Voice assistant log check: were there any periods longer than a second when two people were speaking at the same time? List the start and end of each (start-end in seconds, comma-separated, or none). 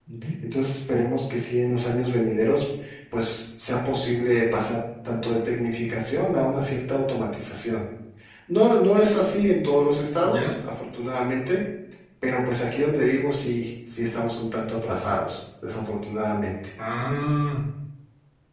none